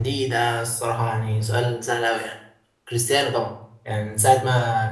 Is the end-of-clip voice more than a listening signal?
No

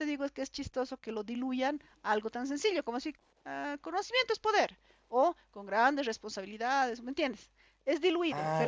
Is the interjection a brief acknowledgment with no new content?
Yes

